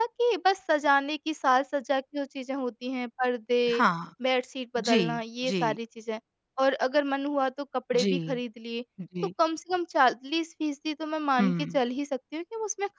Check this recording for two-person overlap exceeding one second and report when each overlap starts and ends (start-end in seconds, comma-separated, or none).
none